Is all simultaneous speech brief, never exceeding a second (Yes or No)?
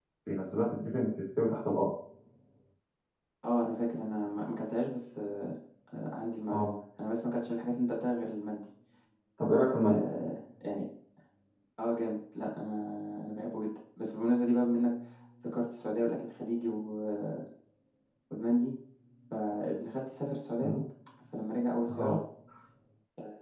Yes